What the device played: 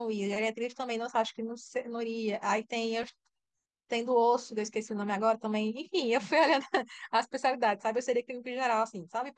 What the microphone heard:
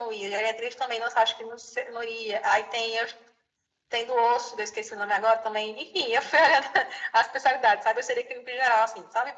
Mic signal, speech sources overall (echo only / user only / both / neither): echo only